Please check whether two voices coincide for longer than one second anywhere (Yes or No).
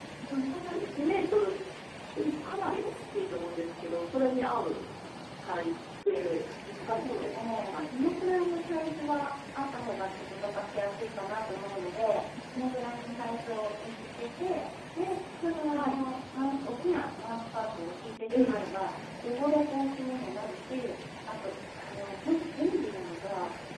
Yes